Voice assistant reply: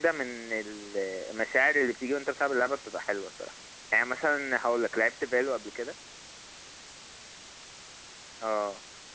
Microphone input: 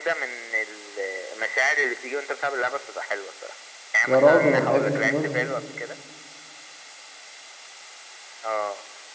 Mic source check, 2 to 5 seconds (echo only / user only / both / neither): both